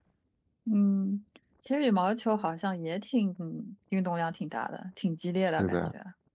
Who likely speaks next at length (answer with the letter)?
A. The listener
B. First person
A